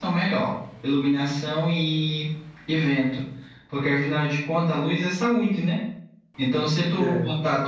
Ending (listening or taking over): listening